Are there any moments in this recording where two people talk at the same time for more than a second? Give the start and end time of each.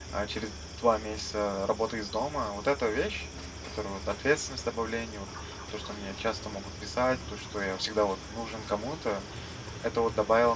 none

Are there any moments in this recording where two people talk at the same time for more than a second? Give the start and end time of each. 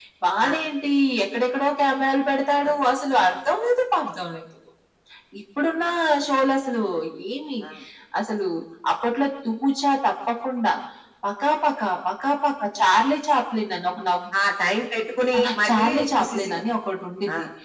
15.4-16.6

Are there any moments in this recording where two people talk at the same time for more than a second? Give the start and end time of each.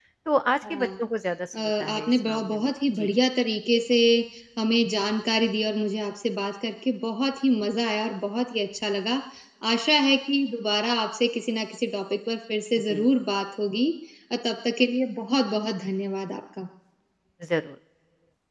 1.8-3.1

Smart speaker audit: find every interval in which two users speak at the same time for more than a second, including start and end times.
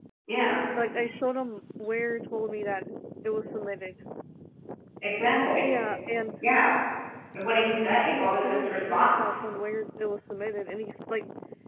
8.1-9.4

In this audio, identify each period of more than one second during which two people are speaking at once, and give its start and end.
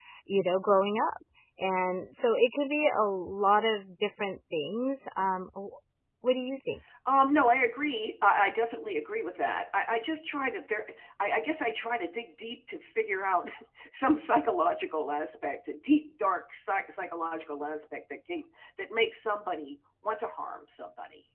none

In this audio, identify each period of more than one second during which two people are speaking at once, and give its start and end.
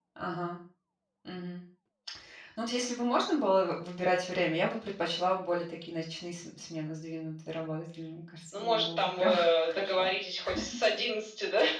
8.5-10.1

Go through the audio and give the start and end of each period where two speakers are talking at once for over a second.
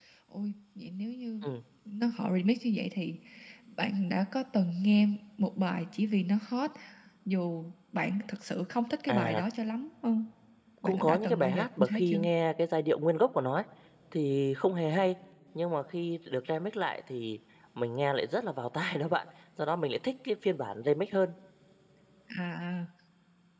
10.8-12.2

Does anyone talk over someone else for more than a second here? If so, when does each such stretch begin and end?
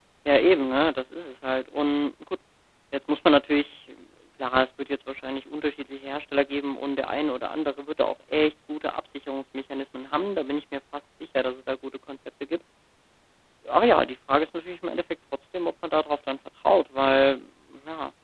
none

